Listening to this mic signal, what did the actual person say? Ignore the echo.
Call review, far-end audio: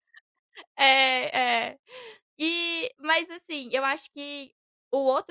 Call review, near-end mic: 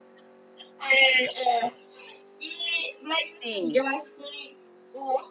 Sim.

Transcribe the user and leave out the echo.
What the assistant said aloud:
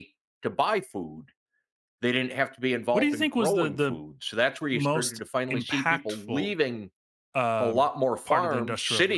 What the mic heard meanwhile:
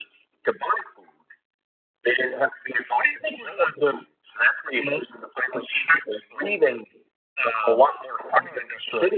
none

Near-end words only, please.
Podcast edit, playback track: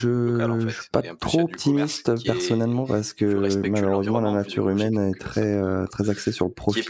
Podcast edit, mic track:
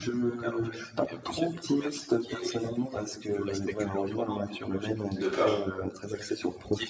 de peur.

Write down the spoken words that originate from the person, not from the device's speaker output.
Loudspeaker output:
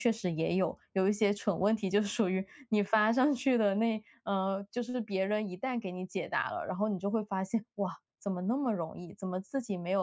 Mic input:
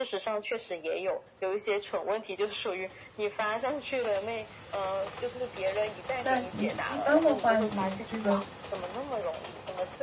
那你一般的话，你这个

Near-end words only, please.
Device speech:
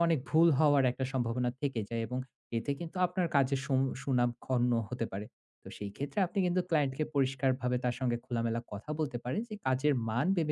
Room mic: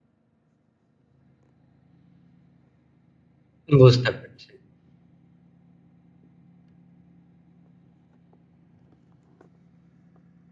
বুঝতে পারছি।

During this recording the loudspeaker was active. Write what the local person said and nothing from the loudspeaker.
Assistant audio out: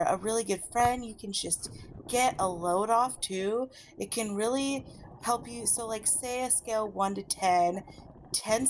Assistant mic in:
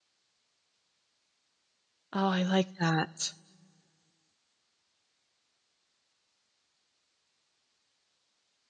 Oh, I like that.

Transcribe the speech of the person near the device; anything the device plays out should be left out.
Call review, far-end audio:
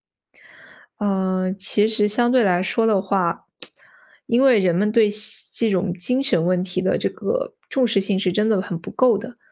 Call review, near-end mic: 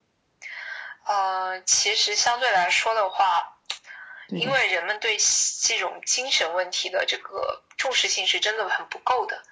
对的，

